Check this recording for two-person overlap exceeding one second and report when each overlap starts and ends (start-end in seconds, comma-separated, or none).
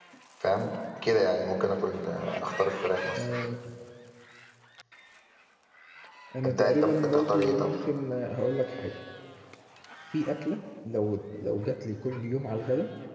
6.4-7.7